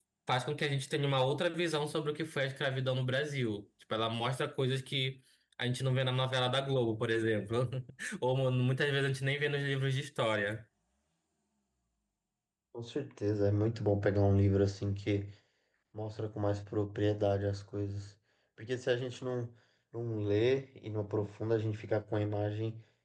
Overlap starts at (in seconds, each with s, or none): none